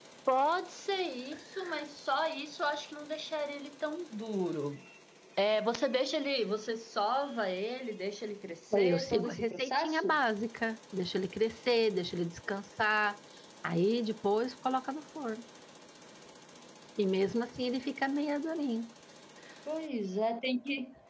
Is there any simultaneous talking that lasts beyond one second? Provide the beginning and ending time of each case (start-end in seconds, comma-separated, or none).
8.7-10.2